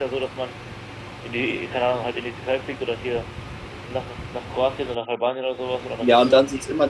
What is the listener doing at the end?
taking over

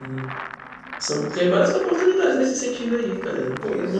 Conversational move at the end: taking over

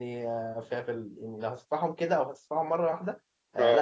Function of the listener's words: listening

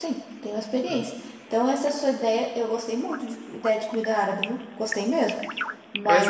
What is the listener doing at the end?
listening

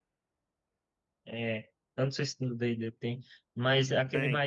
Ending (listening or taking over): taking over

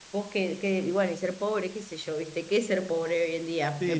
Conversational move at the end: taking over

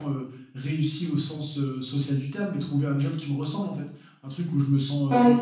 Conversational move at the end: listening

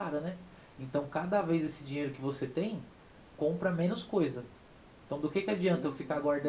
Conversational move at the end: listening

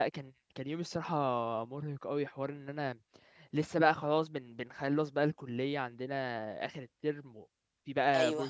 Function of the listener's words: listening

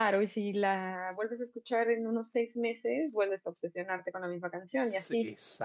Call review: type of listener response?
taking over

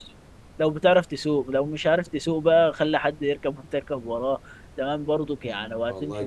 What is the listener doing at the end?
listening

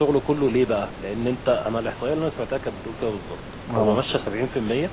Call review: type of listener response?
listening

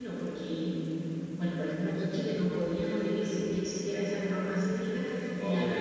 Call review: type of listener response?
listening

